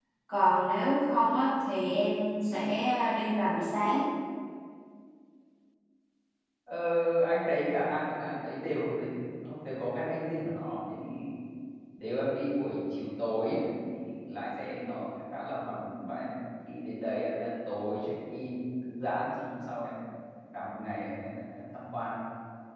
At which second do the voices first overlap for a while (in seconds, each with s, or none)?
none